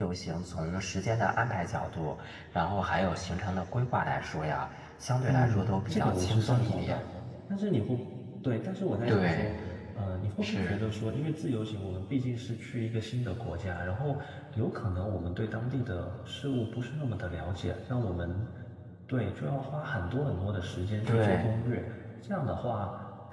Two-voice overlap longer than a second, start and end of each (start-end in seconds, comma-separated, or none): 5.3-7.0